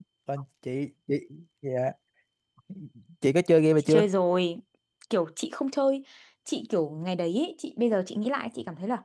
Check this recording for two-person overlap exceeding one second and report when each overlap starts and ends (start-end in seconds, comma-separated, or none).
none